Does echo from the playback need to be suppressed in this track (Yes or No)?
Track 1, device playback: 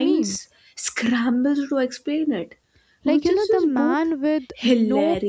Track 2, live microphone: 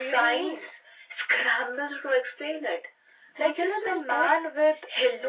Yes